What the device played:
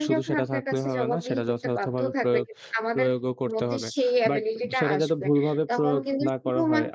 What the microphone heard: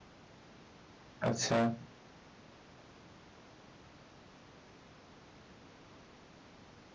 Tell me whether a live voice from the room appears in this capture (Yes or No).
Yes